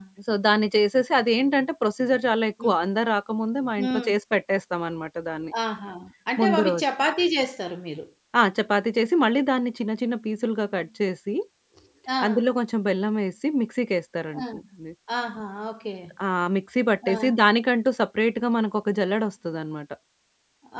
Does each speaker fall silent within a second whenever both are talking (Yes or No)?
Yes